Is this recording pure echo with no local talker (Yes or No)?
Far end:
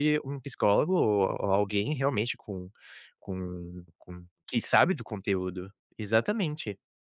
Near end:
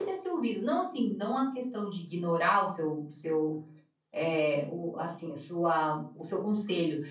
No